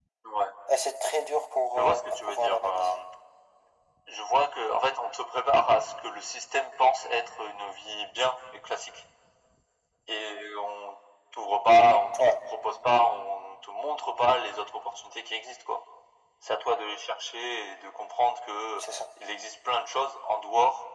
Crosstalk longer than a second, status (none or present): present